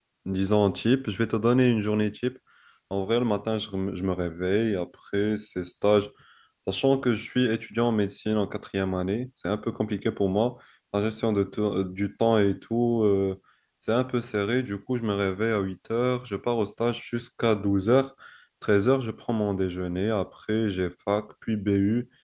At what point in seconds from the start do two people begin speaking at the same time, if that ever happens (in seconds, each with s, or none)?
none